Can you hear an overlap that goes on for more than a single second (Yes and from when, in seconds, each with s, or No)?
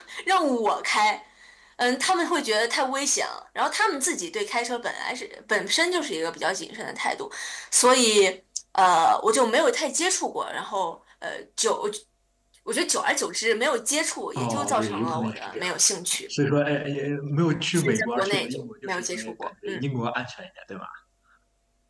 Yes, from 14.4 s